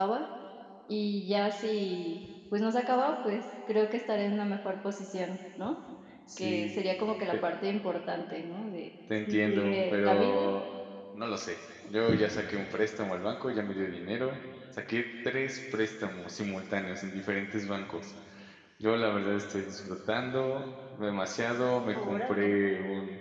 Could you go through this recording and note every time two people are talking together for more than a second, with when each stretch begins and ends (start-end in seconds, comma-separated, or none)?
9.3-10.5